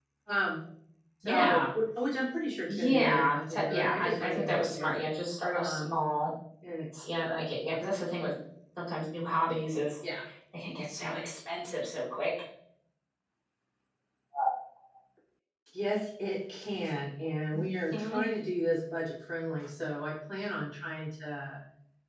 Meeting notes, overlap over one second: present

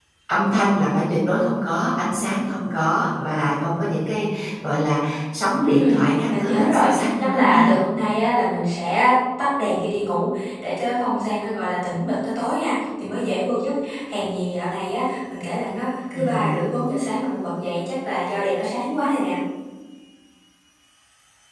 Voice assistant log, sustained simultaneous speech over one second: present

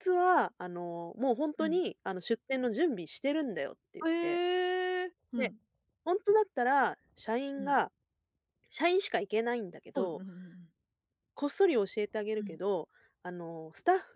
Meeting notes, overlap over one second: none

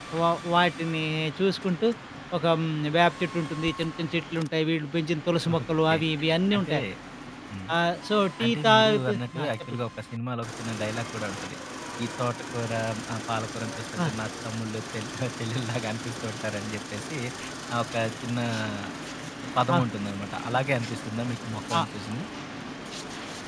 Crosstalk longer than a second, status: present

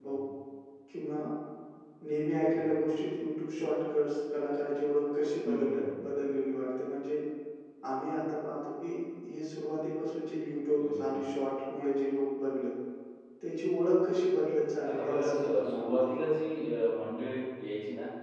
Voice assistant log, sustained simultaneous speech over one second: present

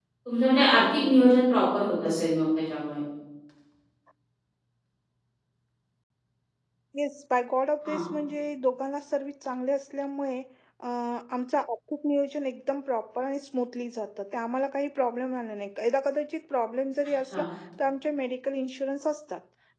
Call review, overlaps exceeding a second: none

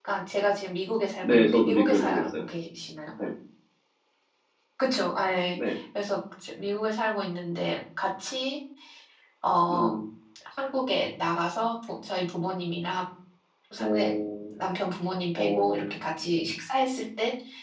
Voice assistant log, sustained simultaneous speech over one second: present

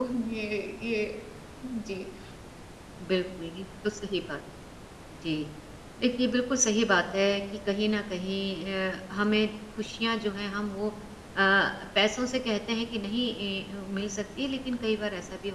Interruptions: none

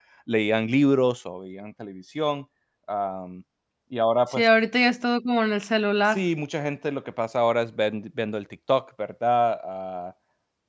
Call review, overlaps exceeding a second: none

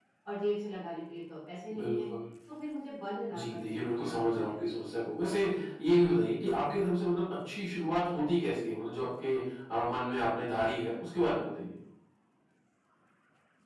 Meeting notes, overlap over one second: present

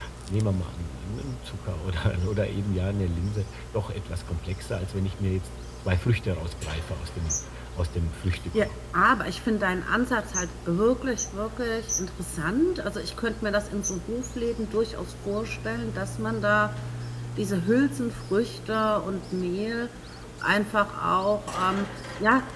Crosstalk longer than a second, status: none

